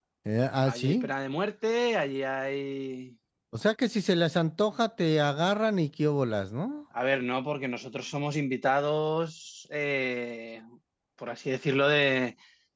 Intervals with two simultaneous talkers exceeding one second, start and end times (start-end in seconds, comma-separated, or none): none